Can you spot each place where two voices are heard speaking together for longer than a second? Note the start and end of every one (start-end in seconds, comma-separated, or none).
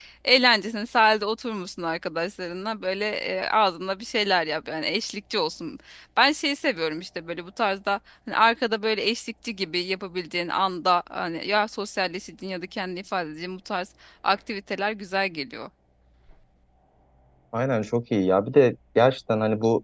none